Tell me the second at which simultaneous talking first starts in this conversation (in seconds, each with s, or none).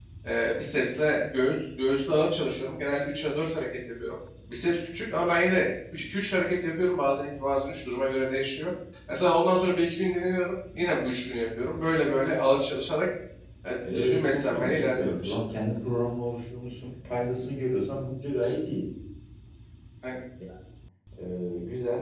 13.8 s